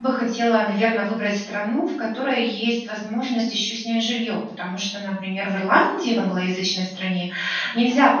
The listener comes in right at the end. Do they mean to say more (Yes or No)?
No